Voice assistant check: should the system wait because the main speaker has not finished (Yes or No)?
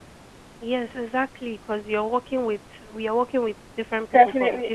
No